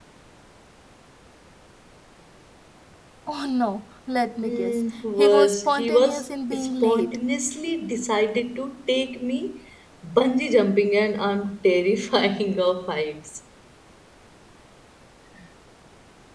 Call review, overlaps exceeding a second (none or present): present